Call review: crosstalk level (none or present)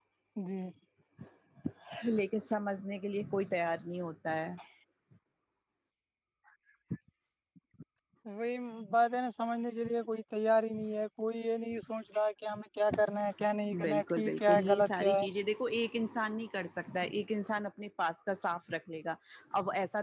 present